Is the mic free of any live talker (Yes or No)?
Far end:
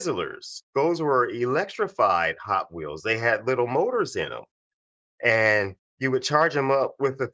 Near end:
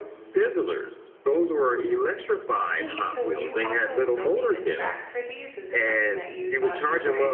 No